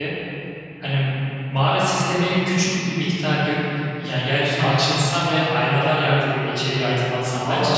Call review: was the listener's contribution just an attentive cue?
No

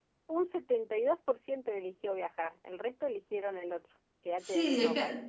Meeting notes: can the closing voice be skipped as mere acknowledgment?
No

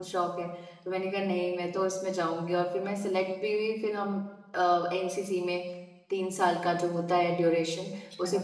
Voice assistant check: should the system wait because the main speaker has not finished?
Yes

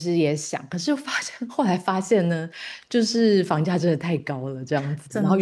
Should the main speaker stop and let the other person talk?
No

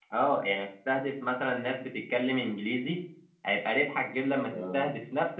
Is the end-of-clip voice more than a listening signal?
No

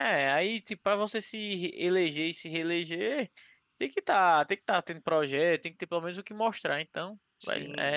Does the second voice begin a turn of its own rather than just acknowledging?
Yes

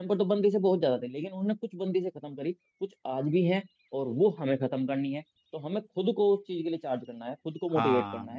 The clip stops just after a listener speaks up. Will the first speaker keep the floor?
Yes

